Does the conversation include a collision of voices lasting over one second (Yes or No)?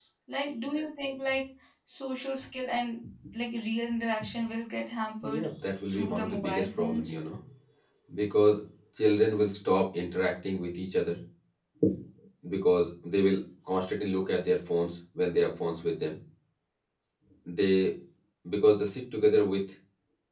Yes